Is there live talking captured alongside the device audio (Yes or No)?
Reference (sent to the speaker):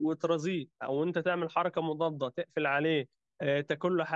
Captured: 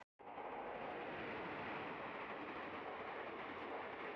No